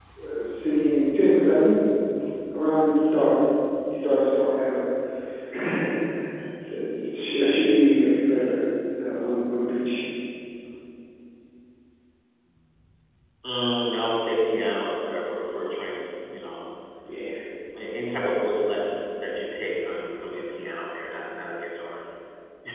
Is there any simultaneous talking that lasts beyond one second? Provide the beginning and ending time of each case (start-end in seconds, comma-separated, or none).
none